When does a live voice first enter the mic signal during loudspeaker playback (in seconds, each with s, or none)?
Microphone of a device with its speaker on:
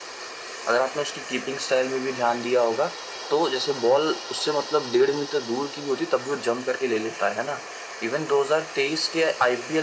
none